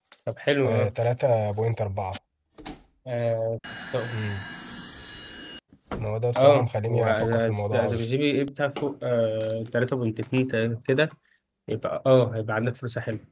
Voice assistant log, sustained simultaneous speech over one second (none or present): present